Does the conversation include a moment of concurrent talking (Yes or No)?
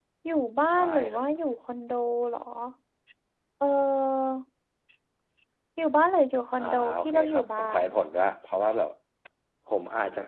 Yes